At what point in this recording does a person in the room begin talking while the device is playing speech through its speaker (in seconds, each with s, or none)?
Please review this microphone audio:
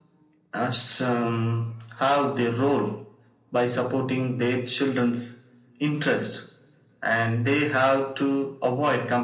none